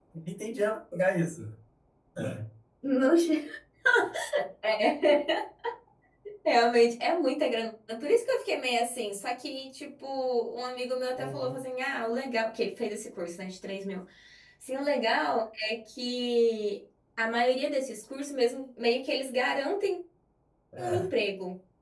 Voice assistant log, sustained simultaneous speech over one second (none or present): none